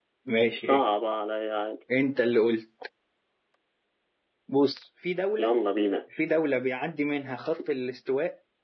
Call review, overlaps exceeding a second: none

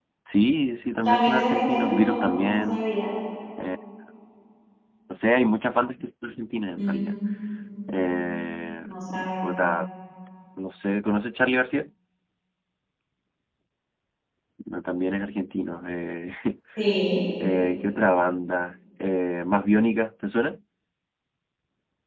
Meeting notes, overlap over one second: present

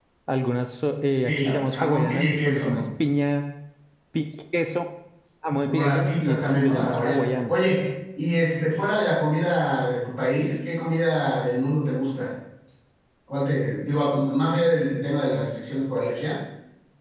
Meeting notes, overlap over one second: present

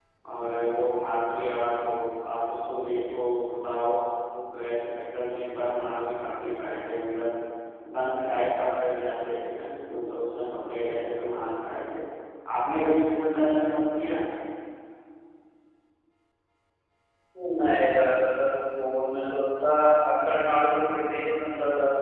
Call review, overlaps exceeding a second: none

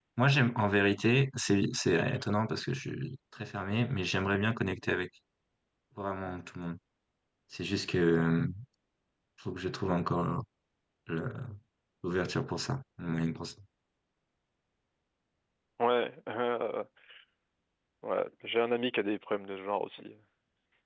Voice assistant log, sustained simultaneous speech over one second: none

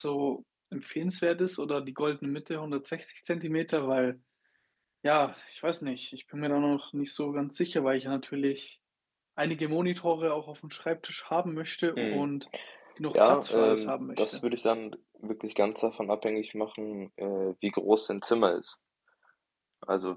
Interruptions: present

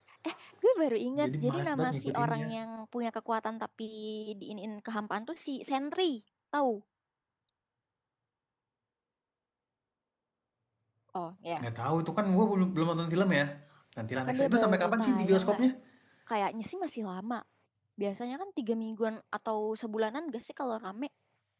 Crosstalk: present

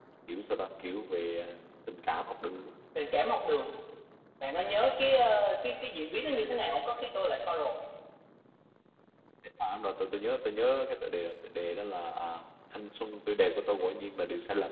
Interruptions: none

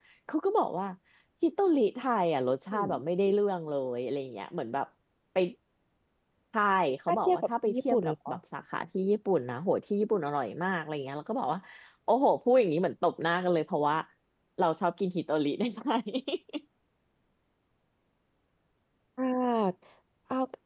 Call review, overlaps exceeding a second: present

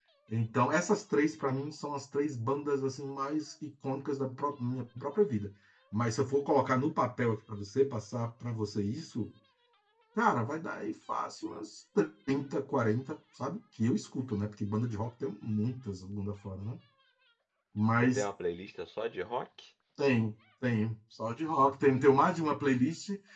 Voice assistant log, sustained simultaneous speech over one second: none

